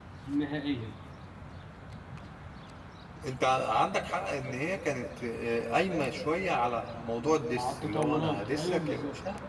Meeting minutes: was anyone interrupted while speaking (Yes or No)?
Yes